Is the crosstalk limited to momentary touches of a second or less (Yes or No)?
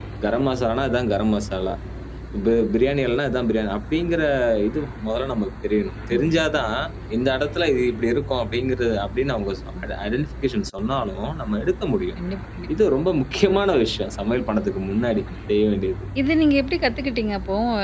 Yes